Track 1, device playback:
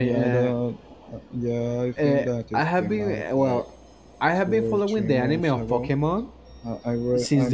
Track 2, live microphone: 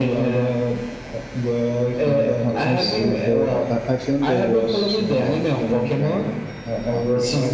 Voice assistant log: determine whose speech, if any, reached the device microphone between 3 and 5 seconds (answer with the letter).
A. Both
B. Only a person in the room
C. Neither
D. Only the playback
A